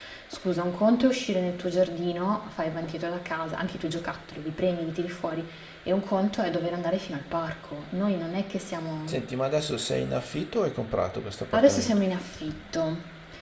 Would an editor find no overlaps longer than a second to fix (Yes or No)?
Yes